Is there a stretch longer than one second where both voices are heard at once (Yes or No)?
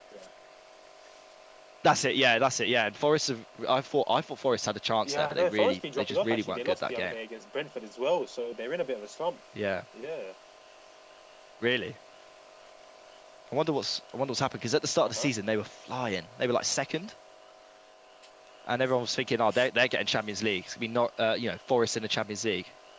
Yes